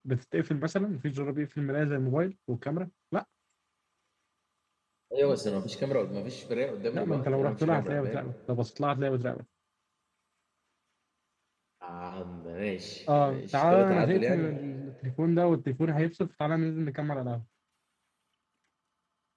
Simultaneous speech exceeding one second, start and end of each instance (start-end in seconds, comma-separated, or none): 6.9-8.3, 13.2-14.5